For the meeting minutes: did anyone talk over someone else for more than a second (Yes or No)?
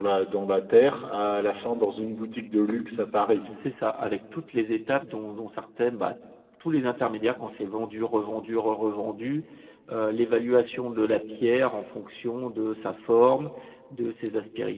No